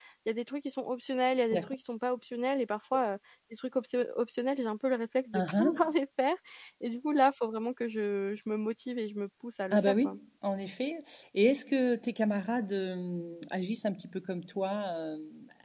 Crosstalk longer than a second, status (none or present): none